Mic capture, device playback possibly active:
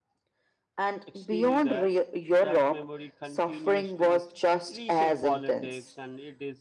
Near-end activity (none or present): present